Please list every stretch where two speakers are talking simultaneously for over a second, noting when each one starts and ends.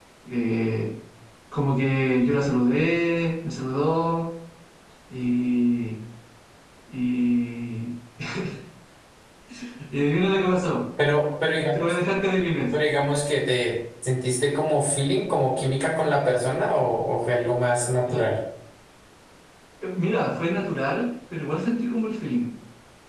none

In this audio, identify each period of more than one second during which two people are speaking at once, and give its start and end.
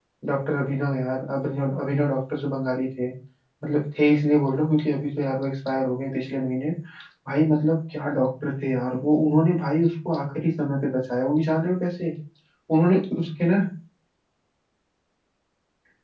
none

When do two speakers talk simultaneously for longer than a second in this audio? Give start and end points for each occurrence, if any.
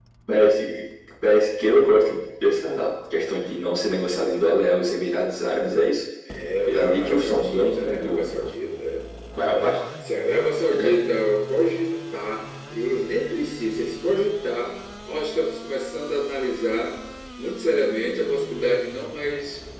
6.7-8.2

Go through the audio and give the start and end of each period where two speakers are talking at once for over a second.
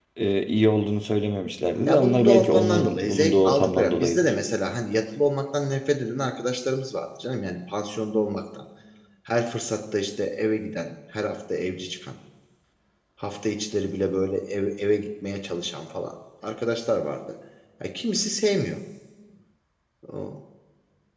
1.9-4.3

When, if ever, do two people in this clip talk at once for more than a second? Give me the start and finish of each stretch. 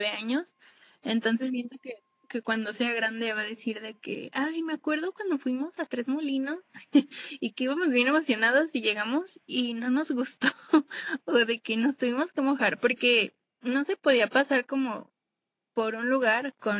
none

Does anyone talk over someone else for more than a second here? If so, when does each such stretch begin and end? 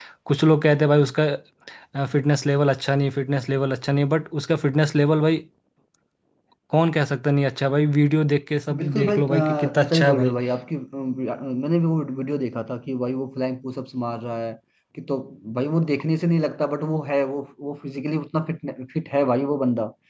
8.8-10.4

